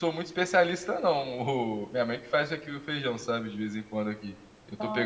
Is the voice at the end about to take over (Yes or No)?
No